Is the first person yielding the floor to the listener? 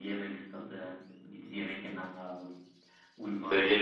Yes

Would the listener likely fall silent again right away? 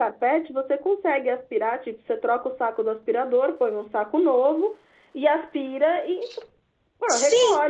No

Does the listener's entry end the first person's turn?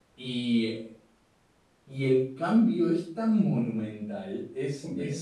No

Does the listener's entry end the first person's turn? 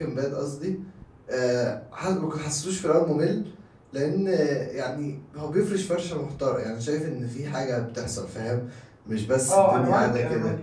Yes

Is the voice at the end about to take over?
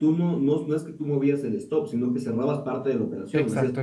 Yes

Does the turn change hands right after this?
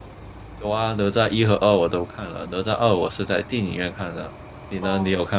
Yes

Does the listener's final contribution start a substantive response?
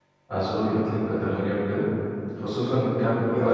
Yes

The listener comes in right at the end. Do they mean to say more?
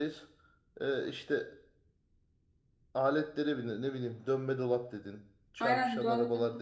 Yes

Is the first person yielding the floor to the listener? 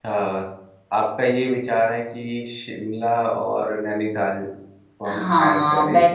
Yes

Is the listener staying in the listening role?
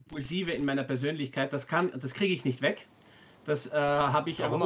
Yes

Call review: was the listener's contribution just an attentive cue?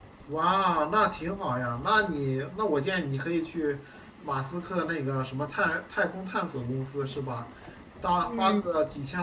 Yes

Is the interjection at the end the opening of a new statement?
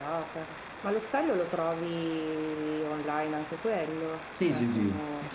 Yes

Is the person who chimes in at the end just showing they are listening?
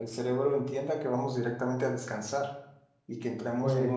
Yes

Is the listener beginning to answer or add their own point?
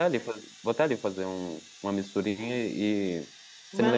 No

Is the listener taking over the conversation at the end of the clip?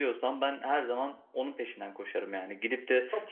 No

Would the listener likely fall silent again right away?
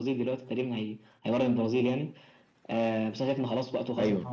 Yes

